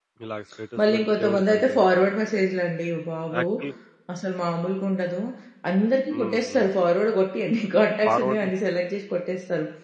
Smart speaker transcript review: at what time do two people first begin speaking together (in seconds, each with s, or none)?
0.8 s